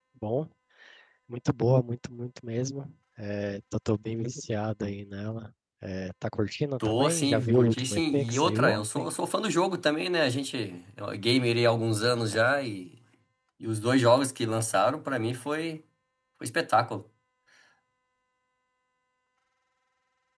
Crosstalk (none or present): present